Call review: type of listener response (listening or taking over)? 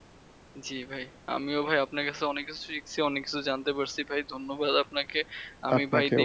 listening